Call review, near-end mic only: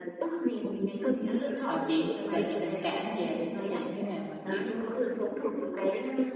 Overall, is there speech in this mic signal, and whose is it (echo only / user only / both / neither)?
both